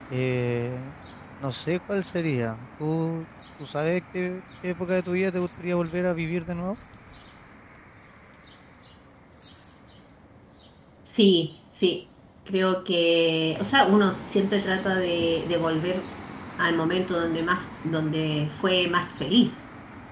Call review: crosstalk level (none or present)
none